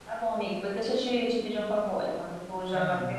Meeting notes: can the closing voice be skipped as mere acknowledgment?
Yes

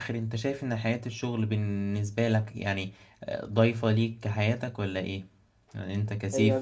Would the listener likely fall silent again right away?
No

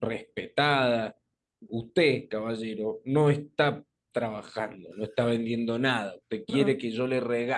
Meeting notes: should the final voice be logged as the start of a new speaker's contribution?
No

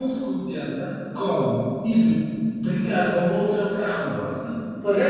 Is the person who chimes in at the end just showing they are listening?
Yes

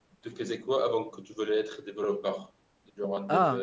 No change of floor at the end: No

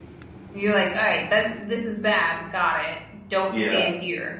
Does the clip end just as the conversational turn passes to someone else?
No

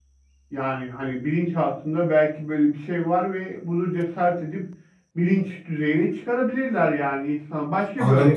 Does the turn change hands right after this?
Yes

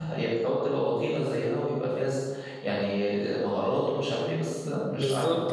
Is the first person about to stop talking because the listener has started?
Yes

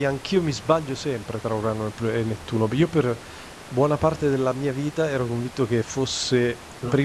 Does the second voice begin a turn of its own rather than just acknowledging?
No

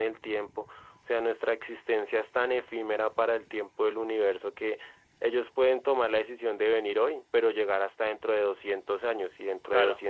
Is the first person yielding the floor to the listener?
No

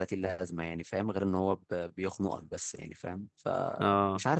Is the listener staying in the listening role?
No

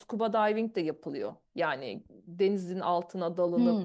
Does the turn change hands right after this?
Yes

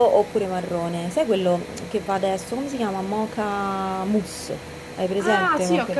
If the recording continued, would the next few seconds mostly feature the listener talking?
Yes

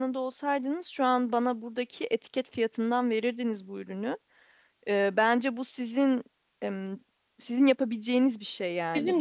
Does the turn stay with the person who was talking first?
Yes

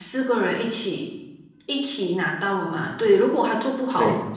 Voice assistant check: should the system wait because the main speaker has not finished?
Yes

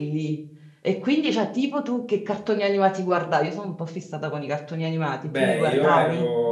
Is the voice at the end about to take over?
Yes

